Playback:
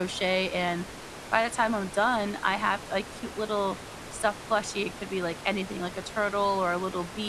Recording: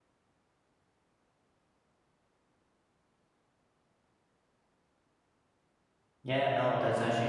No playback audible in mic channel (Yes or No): Yes